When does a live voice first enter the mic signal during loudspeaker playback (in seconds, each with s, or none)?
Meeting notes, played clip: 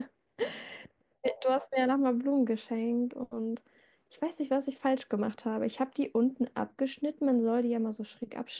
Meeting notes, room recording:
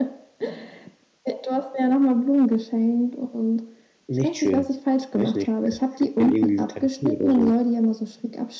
4.1 s